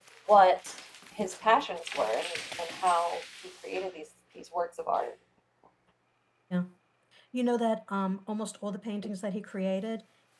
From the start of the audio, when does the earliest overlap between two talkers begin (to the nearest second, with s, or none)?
none